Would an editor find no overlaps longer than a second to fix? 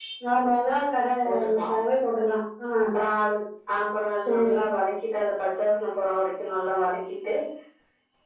Yes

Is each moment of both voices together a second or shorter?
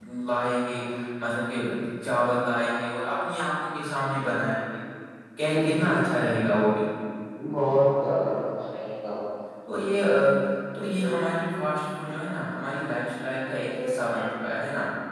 Yes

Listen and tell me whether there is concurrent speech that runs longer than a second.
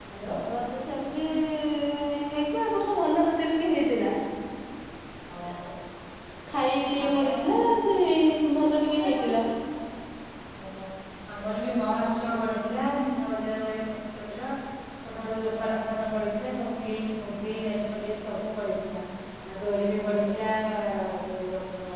No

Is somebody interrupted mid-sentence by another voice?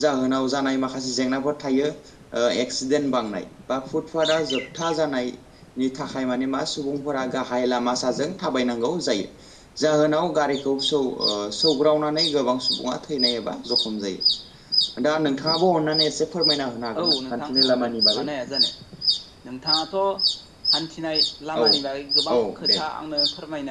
Yes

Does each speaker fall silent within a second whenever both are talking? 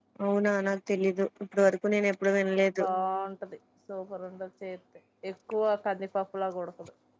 Yes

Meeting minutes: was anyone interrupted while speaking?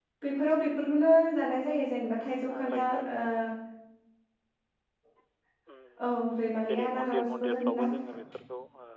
Yes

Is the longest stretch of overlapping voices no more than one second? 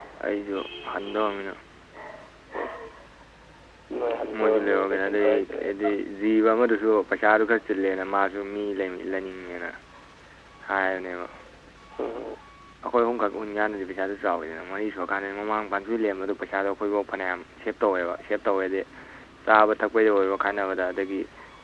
No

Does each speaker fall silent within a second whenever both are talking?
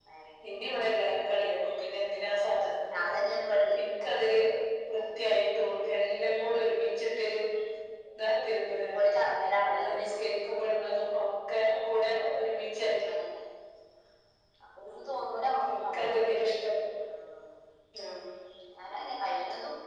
No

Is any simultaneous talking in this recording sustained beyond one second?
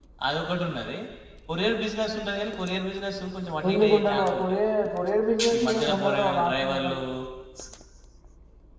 Yes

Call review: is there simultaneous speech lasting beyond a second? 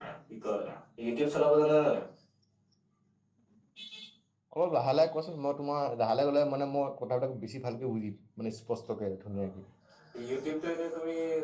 No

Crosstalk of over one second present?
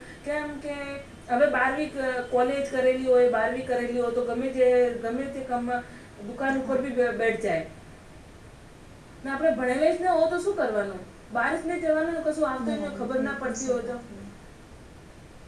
Yes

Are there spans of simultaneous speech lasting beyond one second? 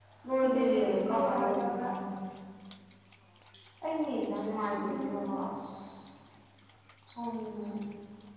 Yes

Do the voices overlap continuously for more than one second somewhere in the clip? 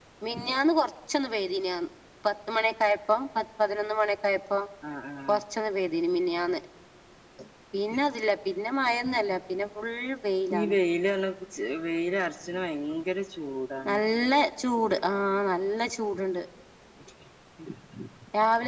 No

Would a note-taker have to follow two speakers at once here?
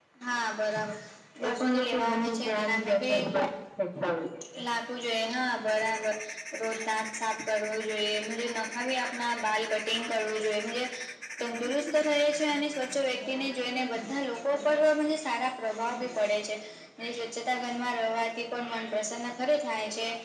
Yes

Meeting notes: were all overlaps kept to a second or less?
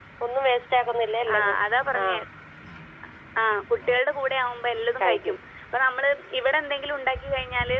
Yes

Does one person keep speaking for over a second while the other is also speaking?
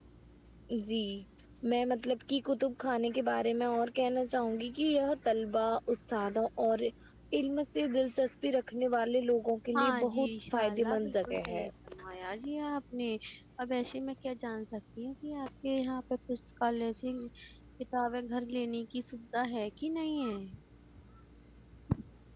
Yes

